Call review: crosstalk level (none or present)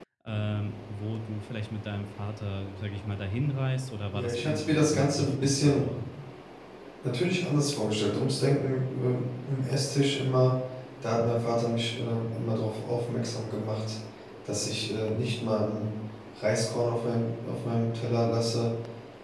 present